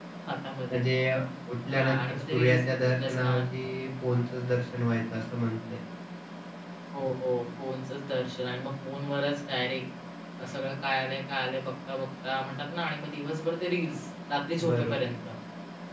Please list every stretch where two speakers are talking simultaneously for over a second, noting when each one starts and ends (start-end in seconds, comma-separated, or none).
1.7-3.4